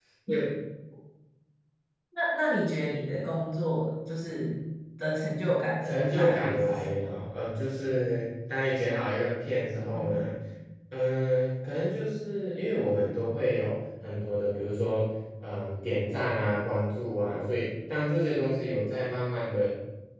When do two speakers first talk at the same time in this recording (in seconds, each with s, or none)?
5.8 s